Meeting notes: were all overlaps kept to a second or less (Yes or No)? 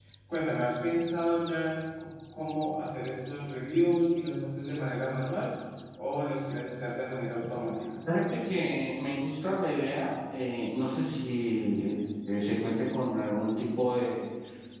Yes